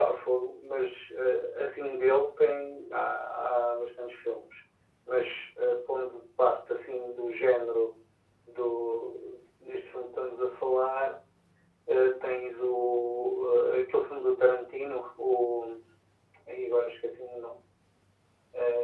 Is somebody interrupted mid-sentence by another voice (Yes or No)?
No